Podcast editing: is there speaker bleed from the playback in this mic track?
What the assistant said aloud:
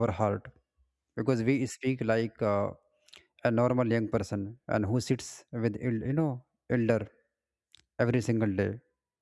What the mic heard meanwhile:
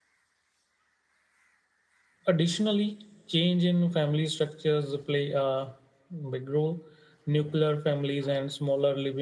No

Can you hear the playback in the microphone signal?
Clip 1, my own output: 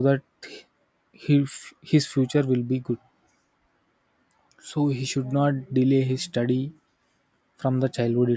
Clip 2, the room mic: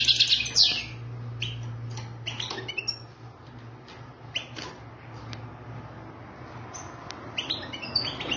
No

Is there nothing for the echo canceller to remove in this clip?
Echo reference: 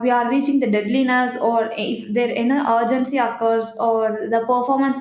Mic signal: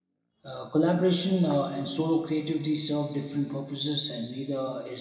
Yes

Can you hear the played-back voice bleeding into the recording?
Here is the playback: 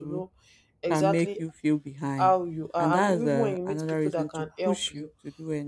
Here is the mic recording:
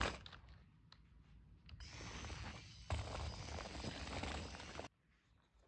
No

